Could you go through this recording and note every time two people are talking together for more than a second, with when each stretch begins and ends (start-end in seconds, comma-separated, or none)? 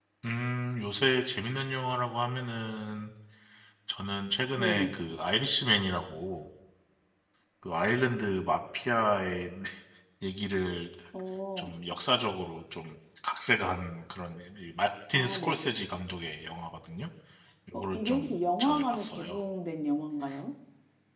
17.9-19.4